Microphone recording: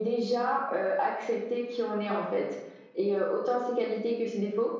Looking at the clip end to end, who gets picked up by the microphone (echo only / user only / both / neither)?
echo only